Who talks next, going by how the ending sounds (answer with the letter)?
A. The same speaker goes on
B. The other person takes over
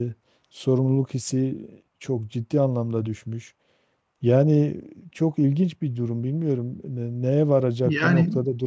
A